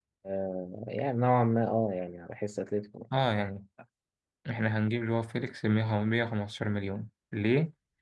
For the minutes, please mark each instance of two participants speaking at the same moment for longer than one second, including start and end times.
none

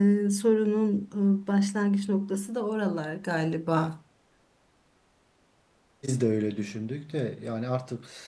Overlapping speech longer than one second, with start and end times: none

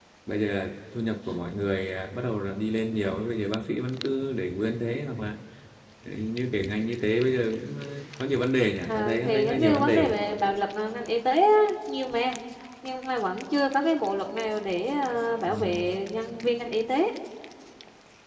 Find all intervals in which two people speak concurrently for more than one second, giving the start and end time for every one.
8.9-10.2

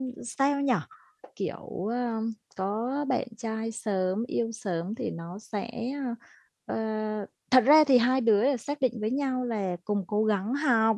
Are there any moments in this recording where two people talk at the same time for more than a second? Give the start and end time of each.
none

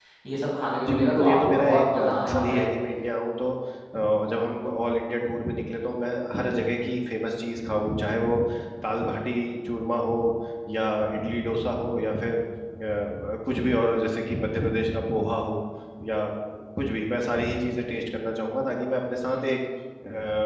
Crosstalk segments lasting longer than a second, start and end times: 0.9-2.6

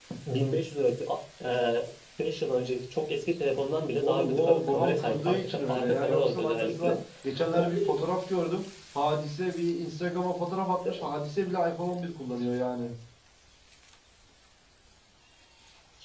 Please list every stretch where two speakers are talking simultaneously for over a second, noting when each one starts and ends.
4.0-6.9

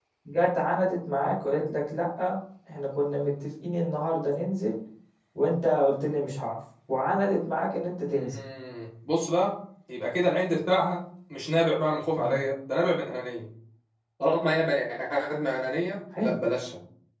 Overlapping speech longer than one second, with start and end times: none

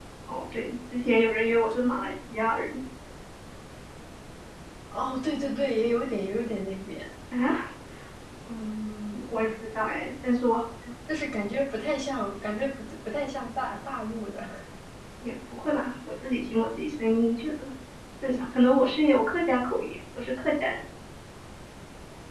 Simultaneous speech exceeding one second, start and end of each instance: none

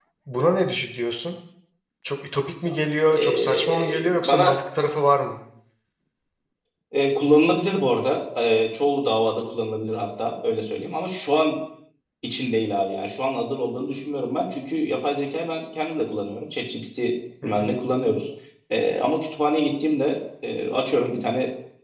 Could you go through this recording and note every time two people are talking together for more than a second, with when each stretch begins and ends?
3.1-4.5

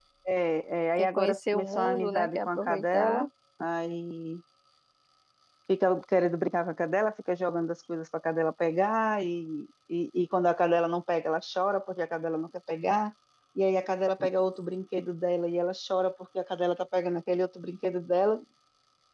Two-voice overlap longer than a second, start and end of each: 1.0-3.3

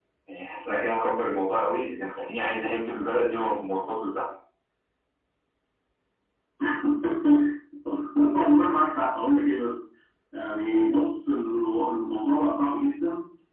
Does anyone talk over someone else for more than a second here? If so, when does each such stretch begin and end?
none

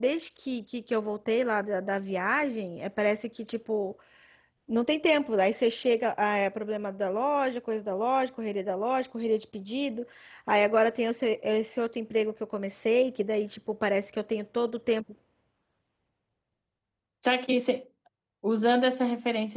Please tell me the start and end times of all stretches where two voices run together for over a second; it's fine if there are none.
none

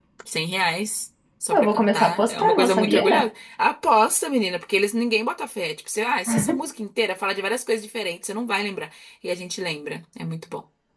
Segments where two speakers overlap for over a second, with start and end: 1.5-3.0

